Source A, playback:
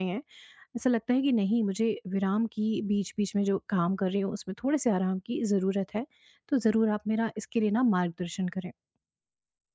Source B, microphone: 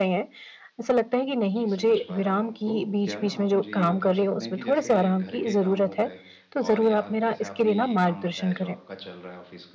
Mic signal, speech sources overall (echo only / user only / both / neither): both